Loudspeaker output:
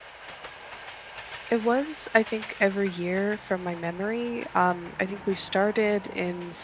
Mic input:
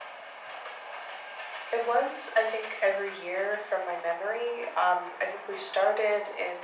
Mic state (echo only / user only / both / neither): echo only